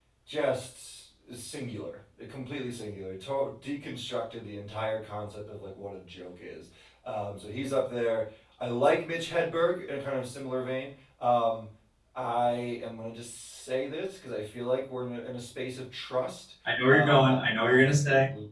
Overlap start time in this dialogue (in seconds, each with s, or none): 16.6 s